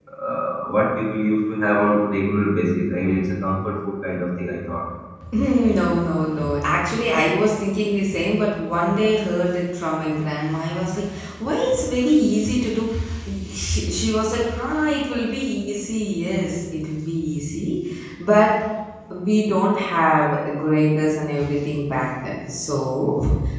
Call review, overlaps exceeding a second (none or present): none